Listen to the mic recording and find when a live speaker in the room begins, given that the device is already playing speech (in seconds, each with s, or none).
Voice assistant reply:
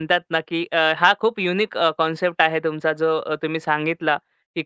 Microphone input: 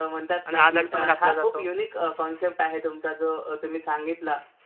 0.4 s